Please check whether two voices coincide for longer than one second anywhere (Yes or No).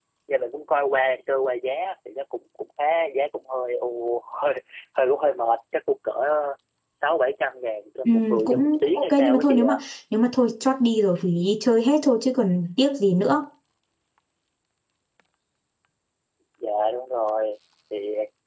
Yes